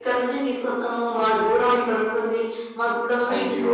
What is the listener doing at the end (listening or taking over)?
listening